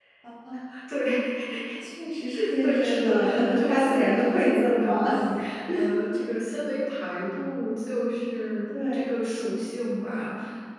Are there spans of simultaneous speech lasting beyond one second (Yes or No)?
Yes